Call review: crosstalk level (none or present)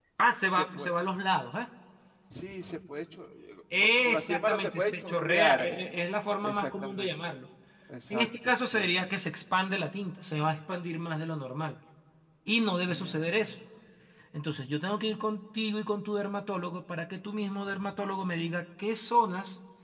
present